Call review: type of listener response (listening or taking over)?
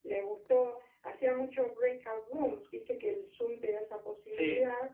listening